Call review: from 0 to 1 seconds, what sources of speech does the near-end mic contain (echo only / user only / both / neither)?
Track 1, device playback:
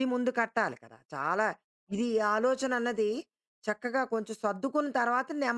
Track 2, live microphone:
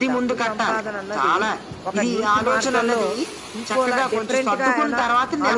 both